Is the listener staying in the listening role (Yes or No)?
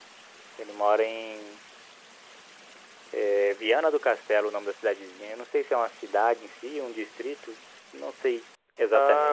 No